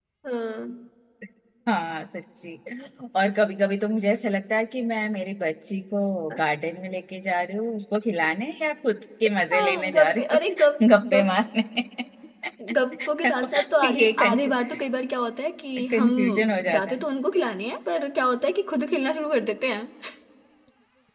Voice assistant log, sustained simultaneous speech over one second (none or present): present